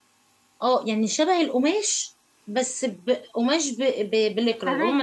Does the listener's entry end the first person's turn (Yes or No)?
No